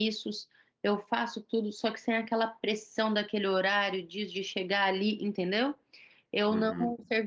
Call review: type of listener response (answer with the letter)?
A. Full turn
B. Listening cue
B